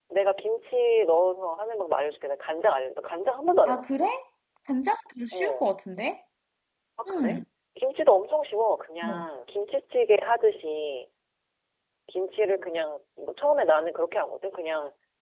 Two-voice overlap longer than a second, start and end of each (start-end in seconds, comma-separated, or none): none